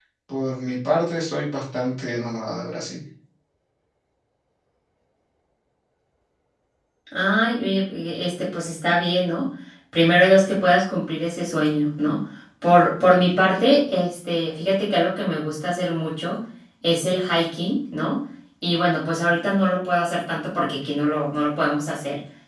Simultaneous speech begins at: none

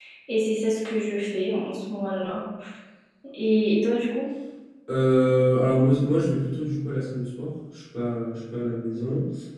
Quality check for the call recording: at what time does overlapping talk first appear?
none

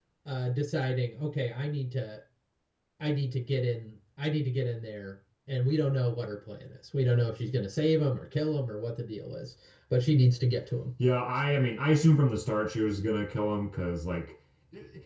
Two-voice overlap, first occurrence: none

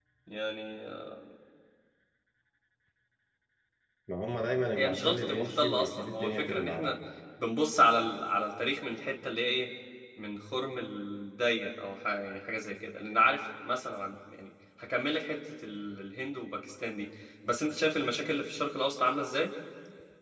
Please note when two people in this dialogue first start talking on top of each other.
4.7 s

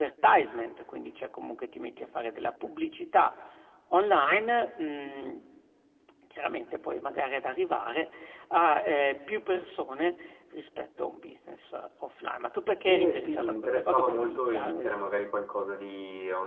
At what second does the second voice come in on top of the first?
12.9 s

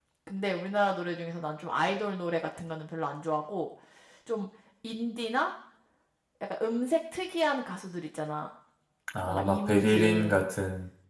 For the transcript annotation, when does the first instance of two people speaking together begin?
9.2 s

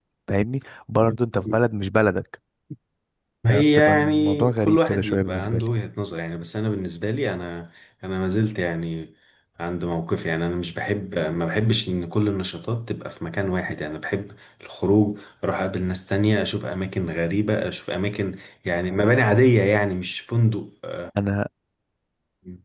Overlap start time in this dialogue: 3.5 s

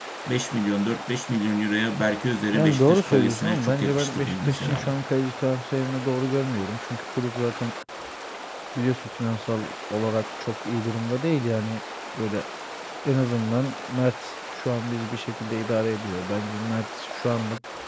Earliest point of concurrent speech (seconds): 2.5 s

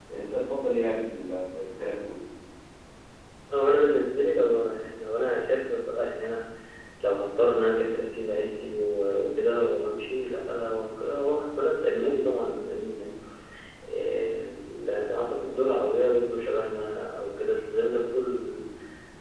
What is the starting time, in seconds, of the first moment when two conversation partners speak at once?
none

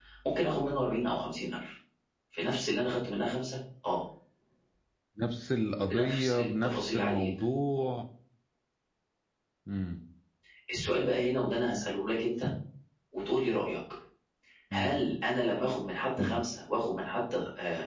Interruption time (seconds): 5.9 s

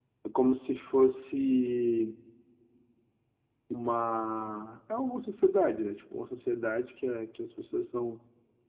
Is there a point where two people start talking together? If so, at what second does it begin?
none

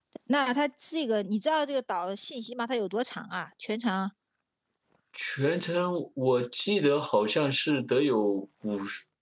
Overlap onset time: none

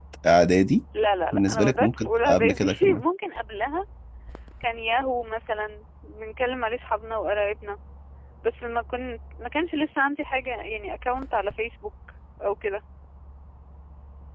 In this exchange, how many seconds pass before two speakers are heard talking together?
1.3 s

